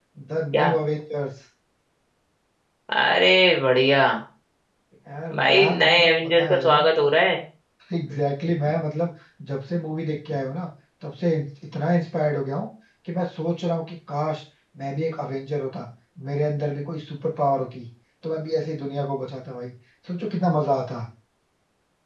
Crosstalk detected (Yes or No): Yes